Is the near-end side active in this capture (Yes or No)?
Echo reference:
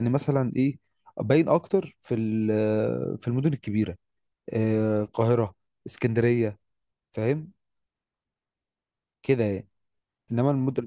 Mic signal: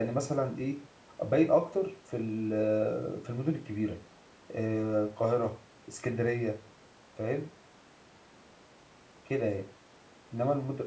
No